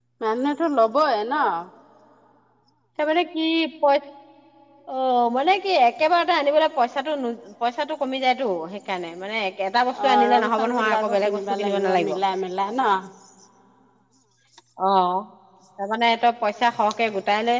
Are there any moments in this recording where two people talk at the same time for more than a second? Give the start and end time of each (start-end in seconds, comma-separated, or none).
10.1-12.2